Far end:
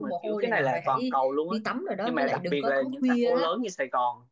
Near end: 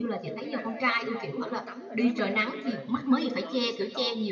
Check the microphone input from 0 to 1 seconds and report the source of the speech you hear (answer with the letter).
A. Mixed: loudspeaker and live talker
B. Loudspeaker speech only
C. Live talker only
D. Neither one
A